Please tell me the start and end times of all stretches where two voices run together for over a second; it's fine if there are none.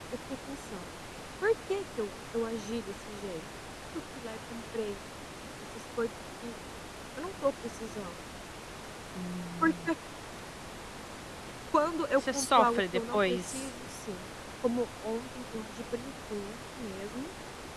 12.2-13.7

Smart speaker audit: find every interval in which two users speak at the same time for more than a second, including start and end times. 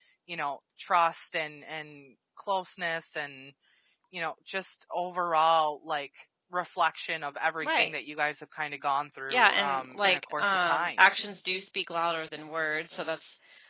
9.3-10.9

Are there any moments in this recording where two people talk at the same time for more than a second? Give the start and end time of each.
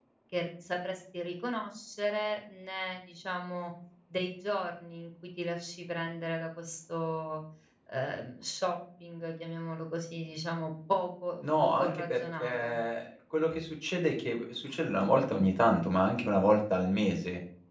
11.4-12.8

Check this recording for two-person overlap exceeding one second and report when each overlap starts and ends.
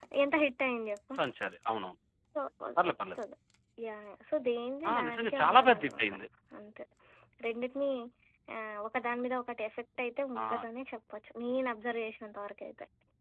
4.9-6.1

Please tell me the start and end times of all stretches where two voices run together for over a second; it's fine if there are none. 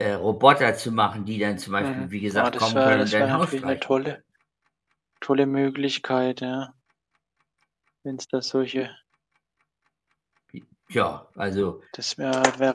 1.8-4.2

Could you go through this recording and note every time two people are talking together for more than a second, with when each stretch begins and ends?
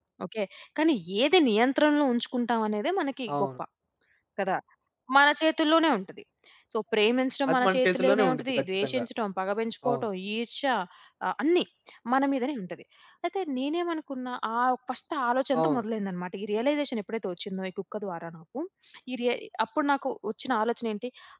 7.5-9.0

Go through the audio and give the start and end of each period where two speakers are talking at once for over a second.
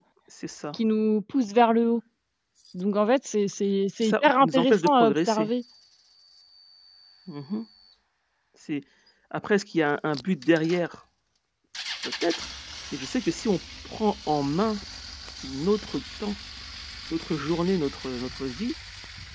4.0-5.5

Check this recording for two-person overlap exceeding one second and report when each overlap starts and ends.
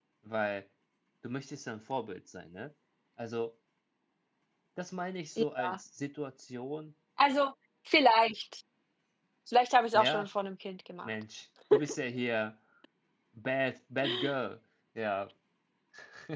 none

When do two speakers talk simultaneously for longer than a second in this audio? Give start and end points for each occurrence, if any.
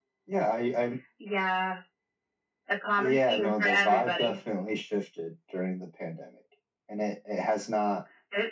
3.0-4.3

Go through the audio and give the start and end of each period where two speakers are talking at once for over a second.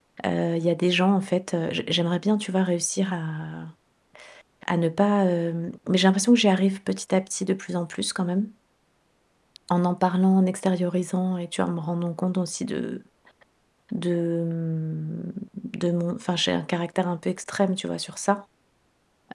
none

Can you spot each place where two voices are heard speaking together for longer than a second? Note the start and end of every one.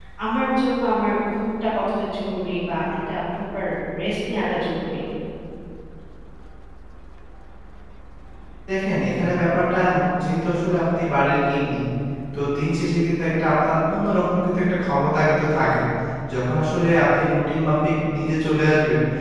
none

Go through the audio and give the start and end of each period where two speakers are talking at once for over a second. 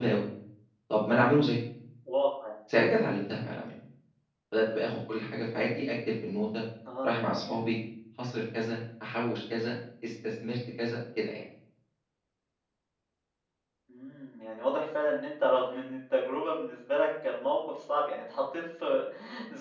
none

